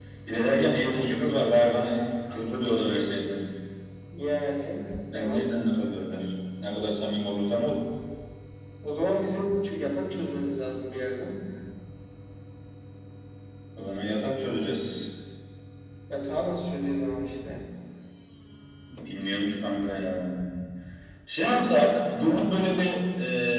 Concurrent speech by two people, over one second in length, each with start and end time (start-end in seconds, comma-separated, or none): none